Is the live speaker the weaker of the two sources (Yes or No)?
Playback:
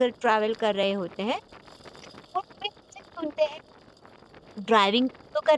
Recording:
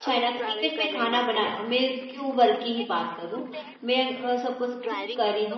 No